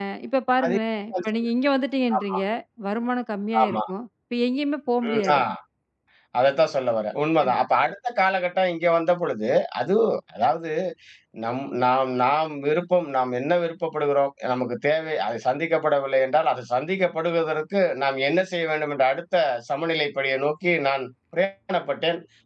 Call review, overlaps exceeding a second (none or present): none